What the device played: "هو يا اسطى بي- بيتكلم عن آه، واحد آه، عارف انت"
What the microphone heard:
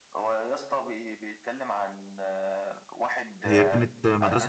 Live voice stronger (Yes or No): Yes